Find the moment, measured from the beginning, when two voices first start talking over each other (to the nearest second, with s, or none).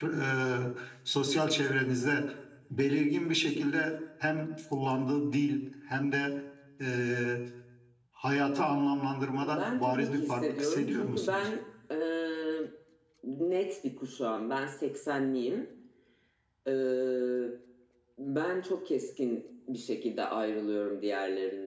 9 s